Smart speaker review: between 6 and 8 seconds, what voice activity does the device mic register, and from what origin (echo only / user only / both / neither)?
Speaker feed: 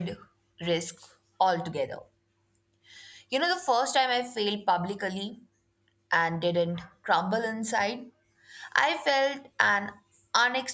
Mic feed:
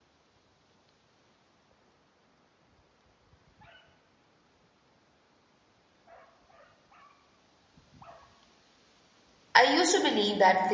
neither